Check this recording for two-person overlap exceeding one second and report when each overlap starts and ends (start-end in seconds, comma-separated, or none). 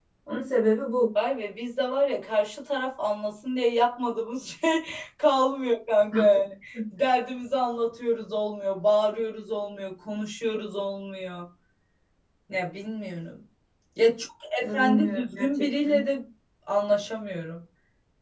14.6-16.0